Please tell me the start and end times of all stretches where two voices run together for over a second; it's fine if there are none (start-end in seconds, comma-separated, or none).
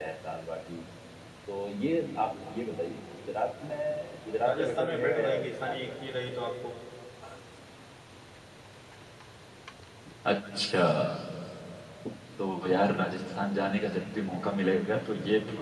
4.4-6.3